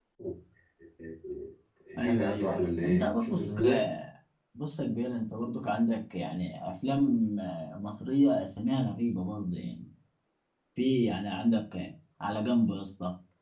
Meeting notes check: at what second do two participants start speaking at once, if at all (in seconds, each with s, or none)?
1.9 s